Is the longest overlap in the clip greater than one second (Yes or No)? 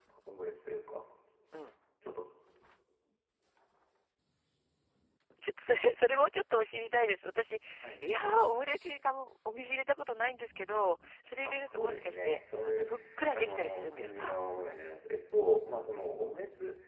Yes